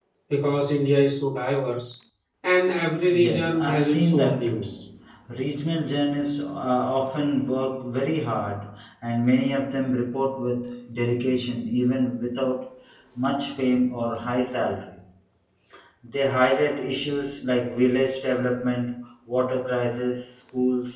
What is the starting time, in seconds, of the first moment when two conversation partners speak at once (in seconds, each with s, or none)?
3.1 s